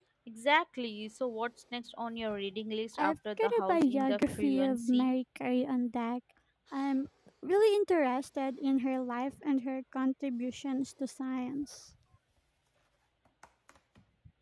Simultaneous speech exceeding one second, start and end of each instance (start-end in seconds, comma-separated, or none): 3.0-5.1